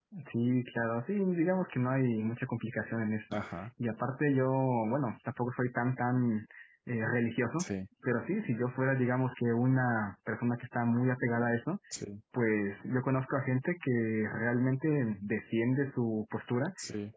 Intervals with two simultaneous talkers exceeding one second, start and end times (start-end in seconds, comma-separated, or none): none